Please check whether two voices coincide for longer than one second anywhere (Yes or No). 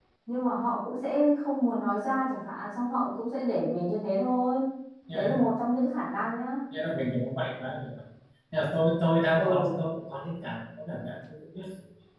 No